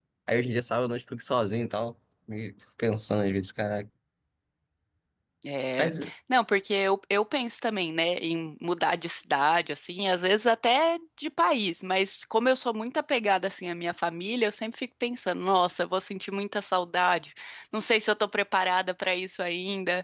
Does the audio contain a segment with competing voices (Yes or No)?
No